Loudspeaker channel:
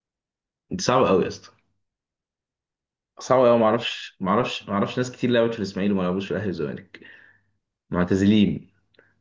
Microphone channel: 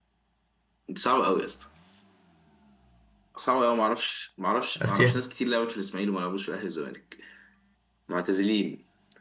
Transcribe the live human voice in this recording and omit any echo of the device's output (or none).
آسيا